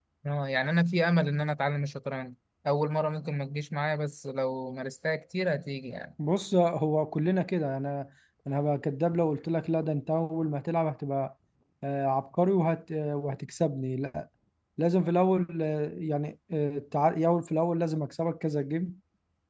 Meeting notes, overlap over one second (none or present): none